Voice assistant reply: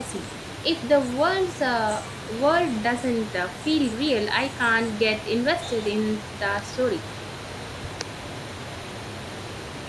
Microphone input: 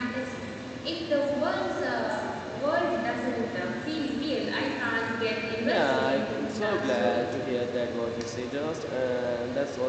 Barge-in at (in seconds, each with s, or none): 5.6 s